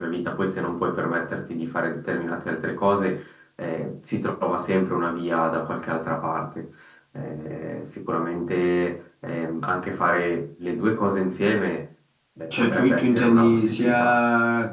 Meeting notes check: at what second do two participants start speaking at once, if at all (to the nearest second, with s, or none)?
13 s